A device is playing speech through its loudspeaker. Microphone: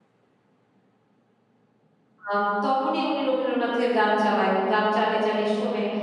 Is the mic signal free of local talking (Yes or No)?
No